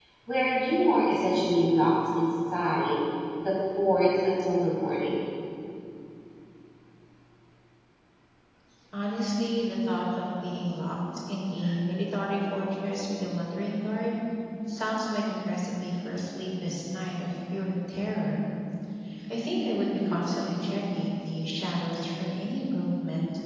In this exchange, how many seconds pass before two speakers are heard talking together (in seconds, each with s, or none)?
none